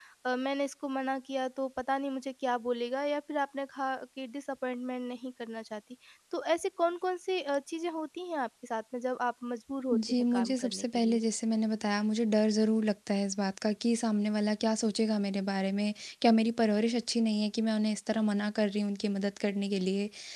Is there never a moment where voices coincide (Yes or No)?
No